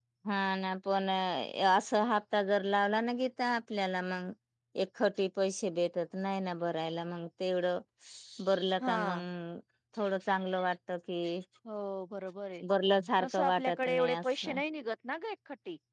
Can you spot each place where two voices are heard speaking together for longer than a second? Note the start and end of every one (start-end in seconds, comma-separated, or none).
13.2-14.6